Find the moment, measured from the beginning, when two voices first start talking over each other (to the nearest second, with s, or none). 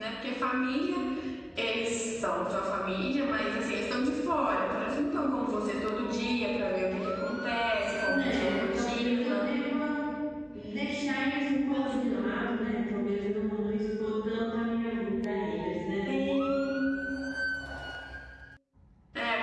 8 s